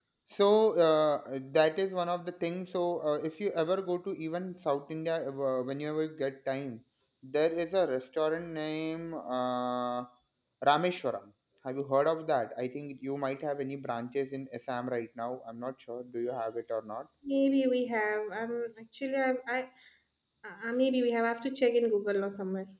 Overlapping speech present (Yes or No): No